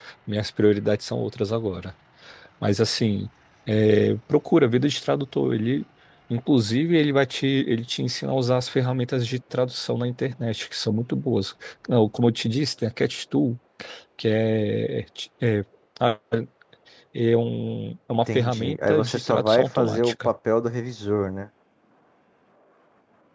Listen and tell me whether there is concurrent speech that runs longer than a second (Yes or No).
Yes